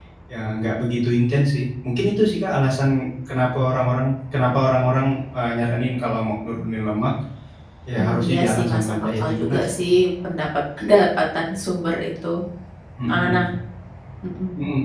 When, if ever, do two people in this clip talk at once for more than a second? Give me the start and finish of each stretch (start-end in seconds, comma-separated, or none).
8.0-9.8